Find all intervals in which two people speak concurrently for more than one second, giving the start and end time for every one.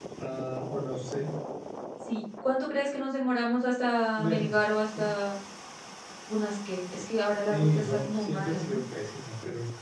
7.5-8.8

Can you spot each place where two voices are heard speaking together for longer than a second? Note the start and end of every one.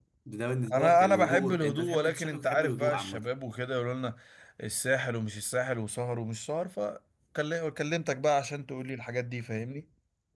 0.7-3.3

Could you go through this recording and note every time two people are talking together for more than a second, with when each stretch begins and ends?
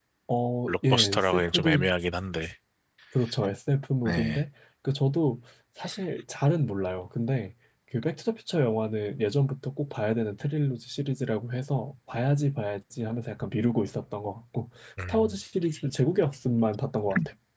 0.7-1.9

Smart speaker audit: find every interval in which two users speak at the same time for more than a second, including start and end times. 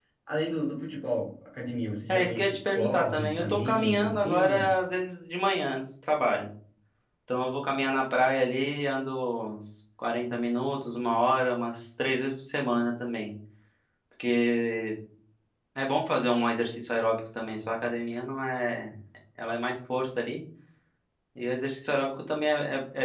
2.1-4.7

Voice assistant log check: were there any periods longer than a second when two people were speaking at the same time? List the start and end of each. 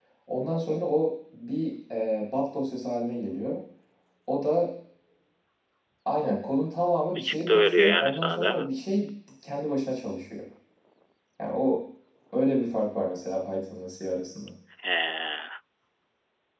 7.2-8.7

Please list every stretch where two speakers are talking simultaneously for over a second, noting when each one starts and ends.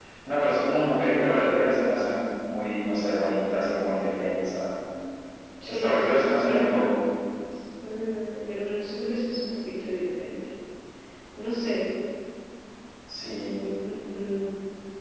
5.7-6.9

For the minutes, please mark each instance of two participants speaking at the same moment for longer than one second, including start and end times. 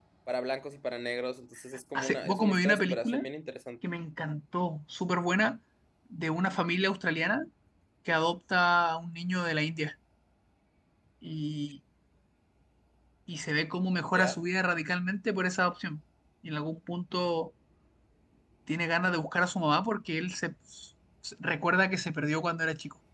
2.0-3.3

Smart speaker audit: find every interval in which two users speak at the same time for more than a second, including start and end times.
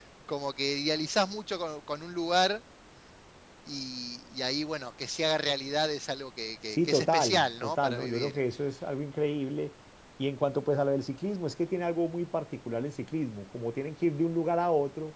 6.7-8.4

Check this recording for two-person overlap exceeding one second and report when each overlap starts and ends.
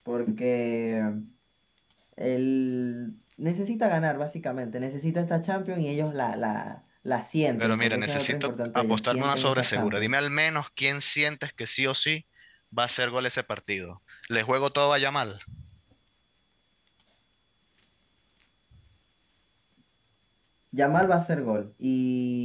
7.6-10.1

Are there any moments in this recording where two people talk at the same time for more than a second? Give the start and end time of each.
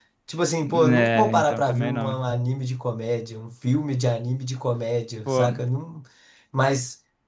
0.9-2.2

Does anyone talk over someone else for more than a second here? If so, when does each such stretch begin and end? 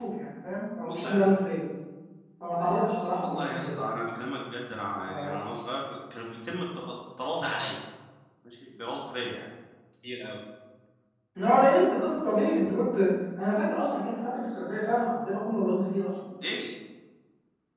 2.6-3.8

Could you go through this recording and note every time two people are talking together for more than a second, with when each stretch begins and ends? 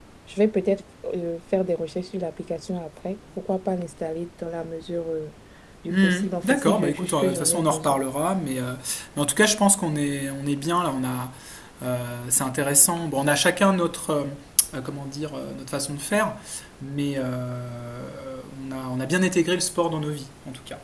5.9-8.0

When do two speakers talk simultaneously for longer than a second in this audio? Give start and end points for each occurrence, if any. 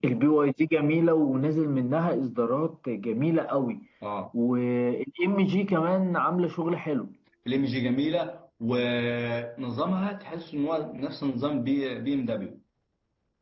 none

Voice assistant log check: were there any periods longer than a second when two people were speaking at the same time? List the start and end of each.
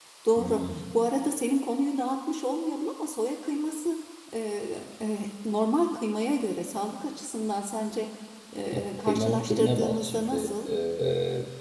8.7-10.5

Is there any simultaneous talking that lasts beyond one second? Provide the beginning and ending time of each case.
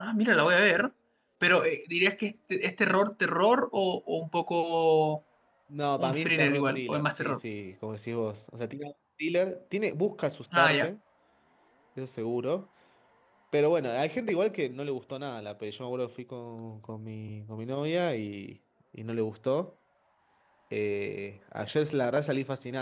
6.0-7.4

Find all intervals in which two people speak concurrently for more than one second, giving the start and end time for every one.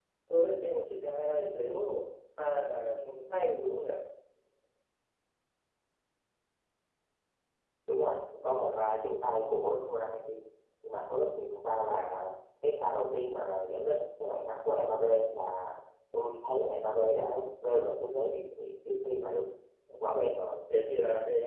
none

